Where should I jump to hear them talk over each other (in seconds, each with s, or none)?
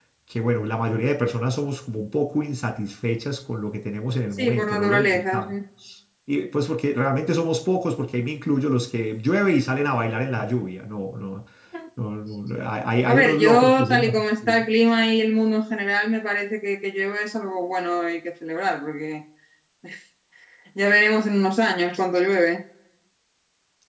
4.3 s